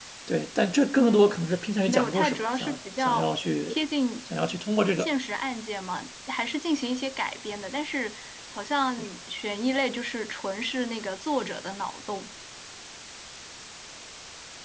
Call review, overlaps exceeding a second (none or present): present